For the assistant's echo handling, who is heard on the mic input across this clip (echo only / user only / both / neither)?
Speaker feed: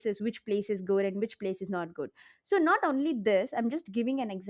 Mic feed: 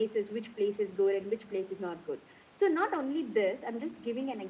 echo only